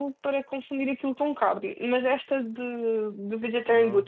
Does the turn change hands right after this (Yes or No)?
No